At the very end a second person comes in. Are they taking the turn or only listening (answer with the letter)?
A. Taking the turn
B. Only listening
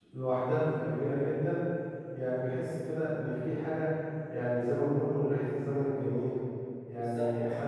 B